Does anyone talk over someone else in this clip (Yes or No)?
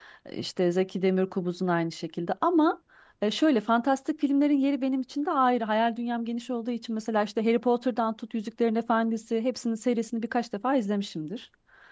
No